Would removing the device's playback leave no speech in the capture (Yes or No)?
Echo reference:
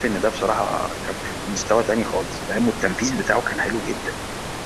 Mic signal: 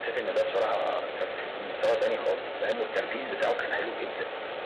Yes